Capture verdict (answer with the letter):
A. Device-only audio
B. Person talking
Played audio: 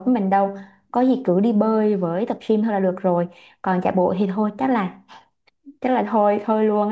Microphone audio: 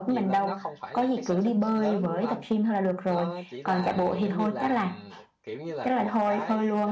B